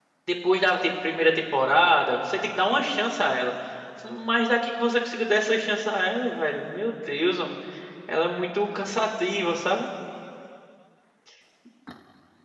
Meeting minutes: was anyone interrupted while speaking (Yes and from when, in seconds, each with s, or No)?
No